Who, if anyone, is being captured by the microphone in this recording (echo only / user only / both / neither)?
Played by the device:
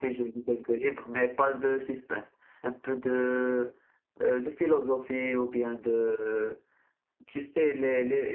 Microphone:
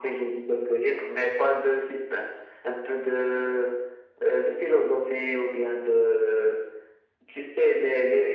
echo only